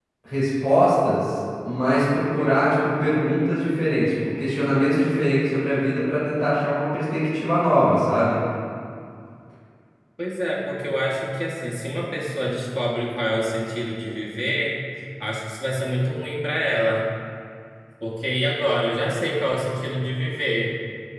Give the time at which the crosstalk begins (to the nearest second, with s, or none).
none